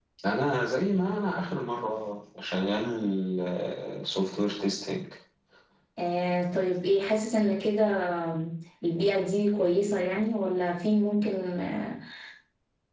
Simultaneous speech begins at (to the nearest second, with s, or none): none